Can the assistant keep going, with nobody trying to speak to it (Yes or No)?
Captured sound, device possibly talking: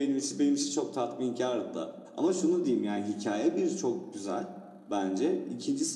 Yes